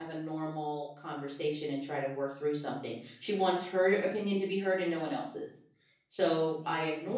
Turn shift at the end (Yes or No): No